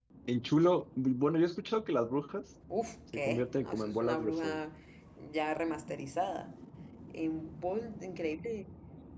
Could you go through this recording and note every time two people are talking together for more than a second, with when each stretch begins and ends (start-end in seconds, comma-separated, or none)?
3.1-4.6